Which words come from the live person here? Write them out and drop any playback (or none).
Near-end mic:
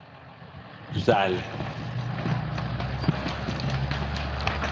Güzel.